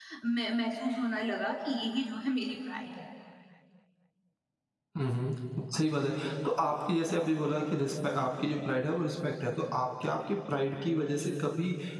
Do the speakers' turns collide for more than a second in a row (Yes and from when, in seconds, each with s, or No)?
No